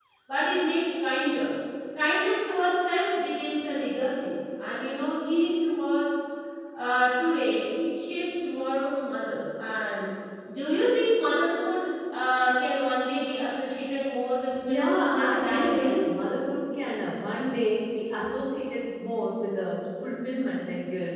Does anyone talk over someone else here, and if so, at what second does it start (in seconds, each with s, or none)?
14.6 s